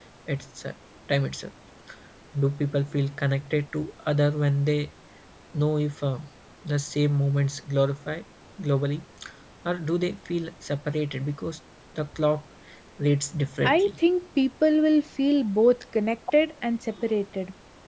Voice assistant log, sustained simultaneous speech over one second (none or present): none